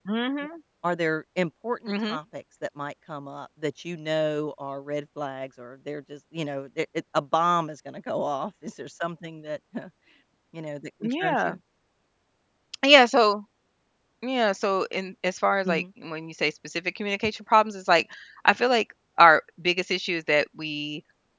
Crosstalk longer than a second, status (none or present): none